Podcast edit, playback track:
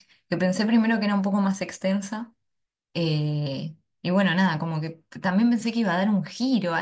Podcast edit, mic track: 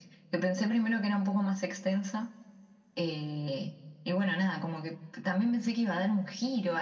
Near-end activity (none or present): none